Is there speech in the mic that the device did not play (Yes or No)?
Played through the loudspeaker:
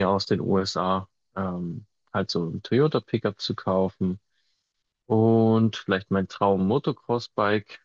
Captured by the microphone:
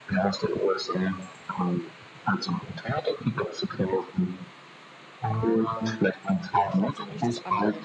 Yes